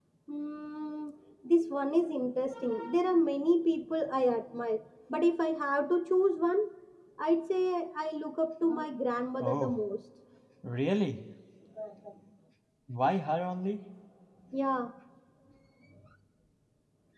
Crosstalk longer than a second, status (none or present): none